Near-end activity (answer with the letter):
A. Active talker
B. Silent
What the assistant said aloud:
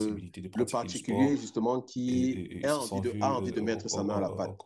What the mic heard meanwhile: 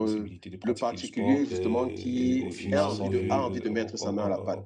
A